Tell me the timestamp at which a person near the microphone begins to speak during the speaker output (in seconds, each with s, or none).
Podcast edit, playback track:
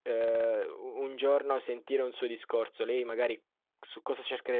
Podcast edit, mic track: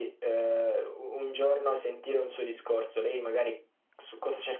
none